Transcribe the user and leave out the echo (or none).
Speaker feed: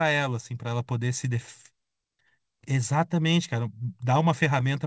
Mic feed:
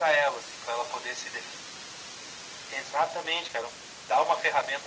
none